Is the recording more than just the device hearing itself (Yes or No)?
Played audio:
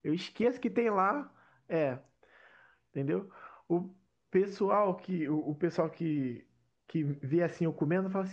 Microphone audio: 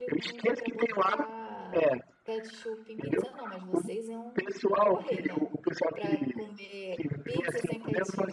Yes